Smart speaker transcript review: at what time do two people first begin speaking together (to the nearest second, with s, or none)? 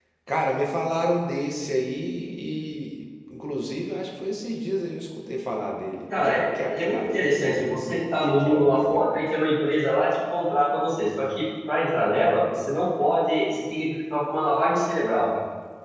6 s